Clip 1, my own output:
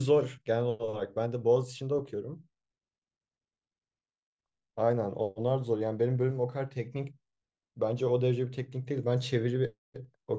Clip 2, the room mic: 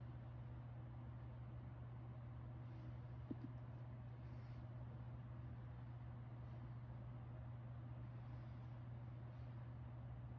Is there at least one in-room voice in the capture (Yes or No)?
No